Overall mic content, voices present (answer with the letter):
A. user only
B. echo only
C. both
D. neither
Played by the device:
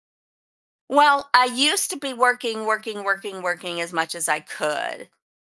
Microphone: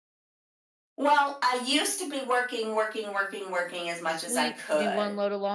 C